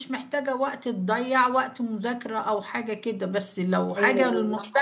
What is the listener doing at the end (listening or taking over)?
listening